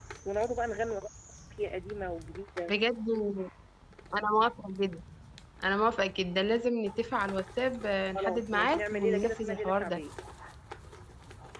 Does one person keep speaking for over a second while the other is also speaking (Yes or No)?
Yes